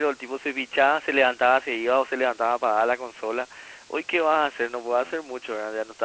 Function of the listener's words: listening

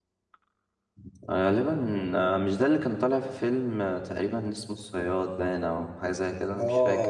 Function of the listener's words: taking over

